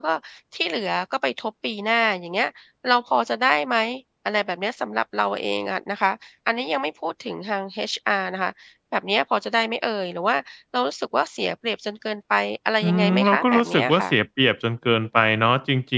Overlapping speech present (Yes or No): Yes